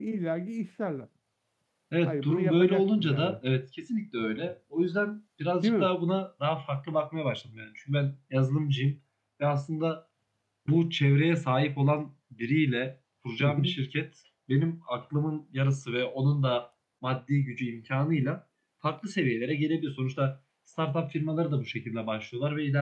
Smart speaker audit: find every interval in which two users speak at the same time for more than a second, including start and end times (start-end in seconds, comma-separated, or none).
2.1-3.4